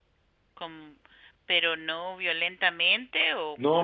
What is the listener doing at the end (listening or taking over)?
taking over